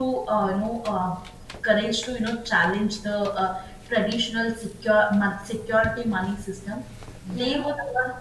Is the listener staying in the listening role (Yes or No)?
Yes